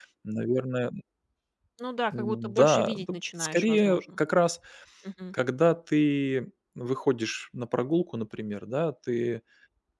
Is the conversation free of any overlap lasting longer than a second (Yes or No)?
No